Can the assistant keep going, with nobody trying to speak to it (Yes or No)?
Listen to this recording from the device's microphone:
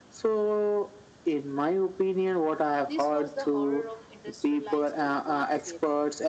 No